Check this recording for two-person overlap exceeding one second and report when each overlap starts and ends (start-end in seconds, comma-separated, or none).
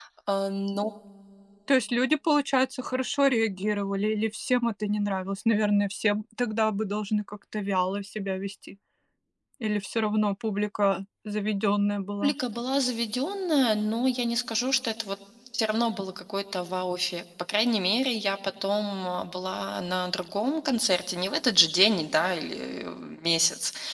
none